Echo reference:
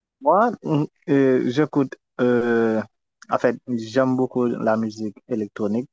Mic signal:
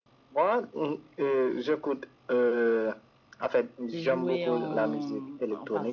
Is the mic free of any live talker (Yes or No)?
No